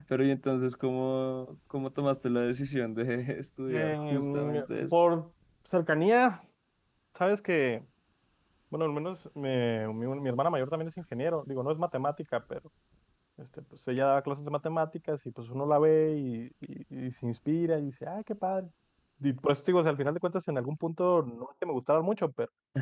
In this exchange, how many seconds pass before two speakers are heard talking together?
3.7 s

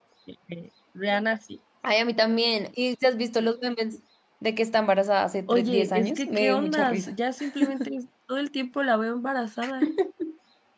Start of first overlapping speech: 5.5 s

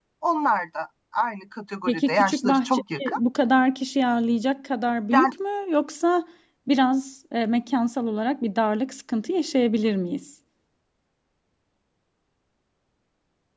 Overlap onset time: 1.9 s

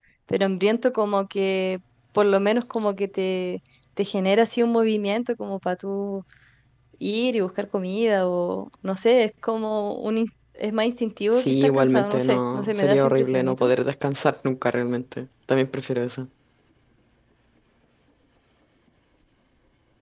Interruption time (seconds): 11.3 s

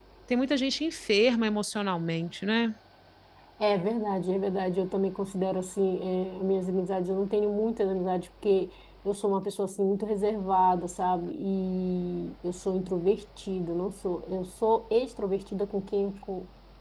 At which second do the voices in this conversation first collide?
none

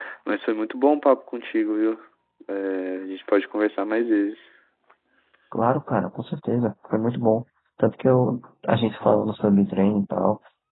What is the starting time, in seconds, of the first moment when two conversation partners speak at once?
none

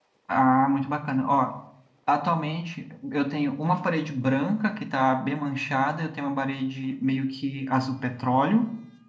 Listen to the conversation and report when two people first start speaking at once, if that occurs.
none

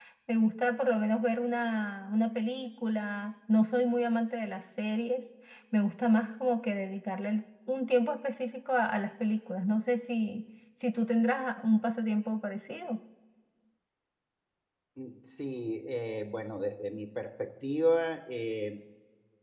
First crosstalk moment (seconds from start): none

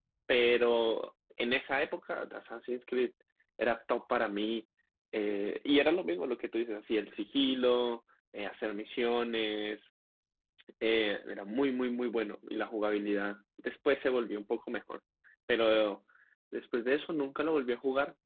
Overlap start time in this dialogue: none

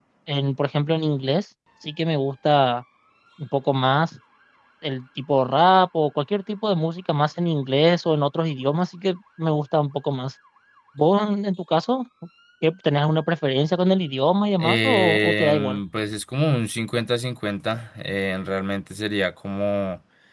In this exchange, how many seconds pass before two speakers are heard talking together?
14.6 s

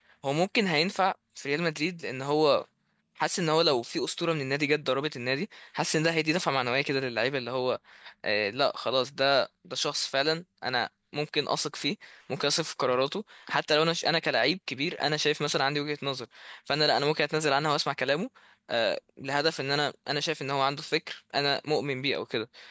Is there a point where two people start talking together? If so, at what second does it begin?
none

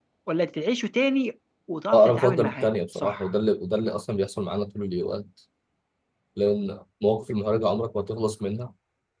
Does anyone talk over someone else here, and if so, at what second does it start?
1.9 s

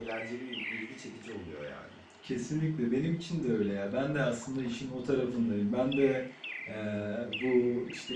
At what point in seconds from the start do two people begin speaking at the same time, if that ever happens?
none

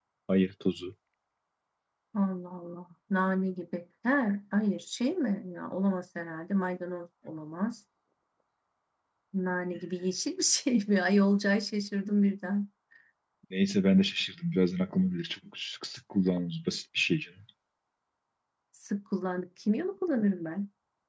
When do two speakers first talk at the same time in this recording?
none

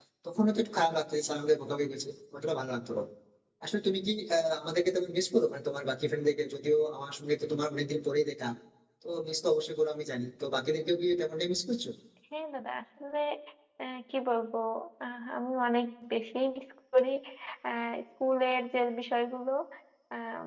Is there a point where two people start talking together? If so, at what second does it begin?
none

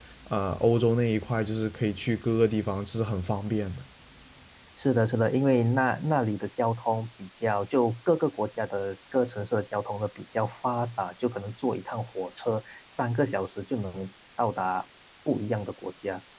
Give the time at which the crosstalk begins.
none

